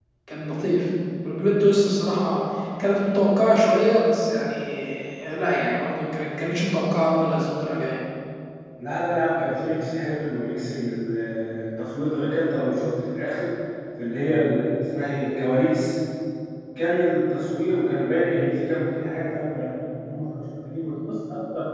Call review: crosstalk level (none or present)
none